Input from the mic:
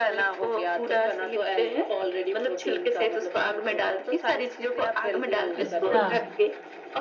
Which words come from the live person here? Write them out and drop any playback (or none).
अच्छा,